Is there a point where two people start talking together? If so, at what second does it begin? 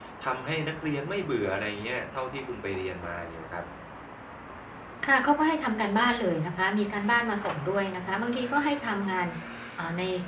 none

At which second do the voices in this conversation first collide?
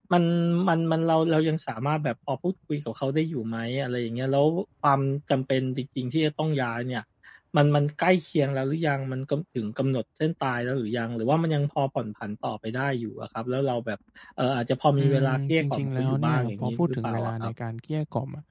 15.0 s

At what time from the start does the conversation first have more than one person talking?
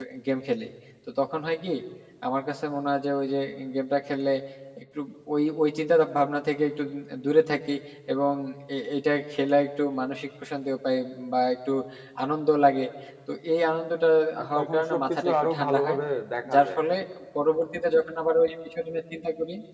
14.5 s

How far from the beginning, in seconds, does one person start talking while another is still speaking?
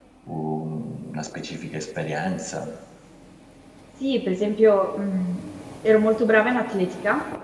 none

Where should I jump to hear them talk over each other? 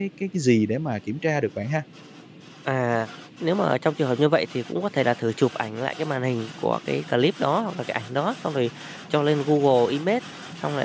none

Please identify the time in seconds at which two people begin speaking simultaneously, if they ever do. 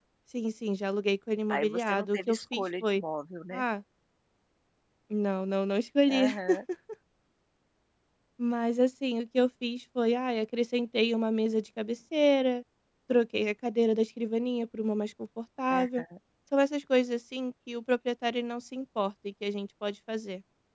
1.5 s

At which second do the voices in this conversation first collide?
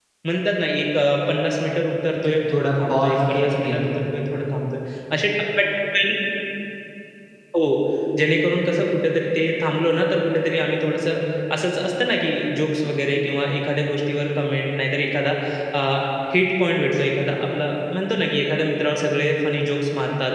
2.2 s

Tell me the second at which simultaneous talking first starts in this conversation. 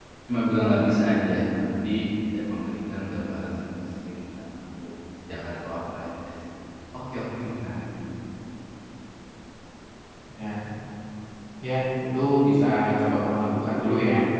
none

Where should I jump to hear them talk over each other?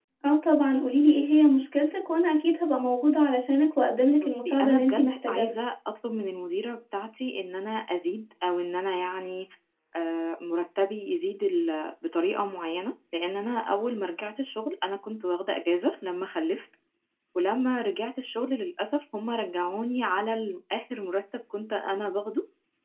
4.2 s

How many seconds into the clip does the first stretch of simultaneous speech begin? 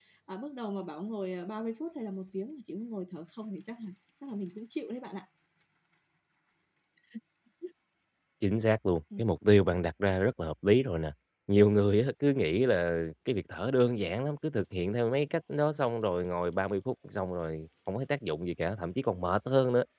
none

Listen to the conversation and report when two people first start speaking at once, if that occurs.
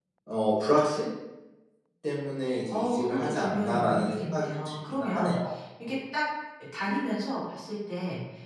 2.7 s

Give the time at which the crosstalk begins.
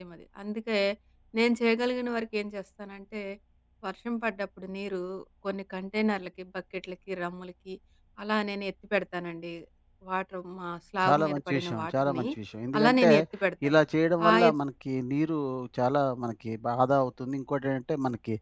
11.1 s

